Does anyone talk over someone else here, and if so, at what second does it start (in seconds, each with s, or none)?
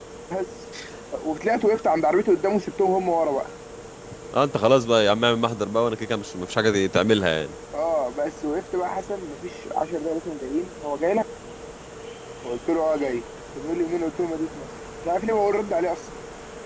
none